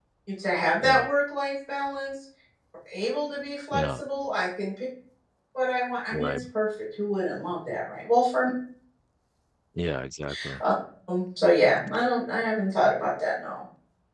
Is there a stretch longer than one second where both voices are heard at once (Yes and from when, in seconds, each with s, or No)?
No